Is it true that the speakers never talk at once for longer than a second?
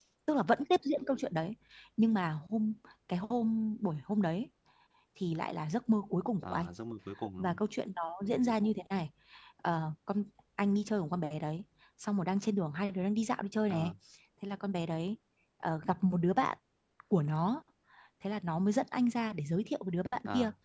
Yes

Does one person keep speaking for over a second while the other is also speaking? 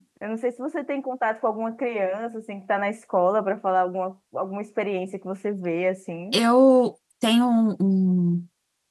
No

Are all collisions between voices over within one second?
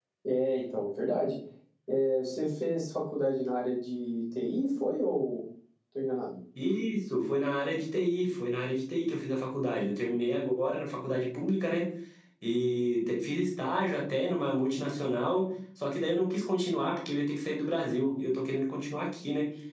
Yes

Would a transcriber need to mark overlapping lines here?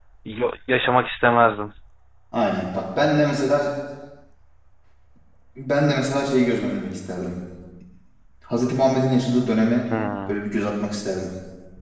No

